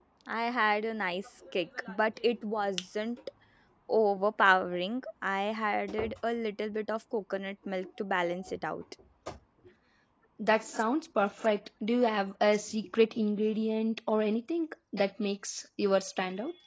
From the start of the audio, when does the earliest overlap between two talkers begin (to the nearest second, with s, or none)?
none